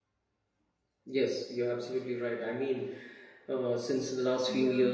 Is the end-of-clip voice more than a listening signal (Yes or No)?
No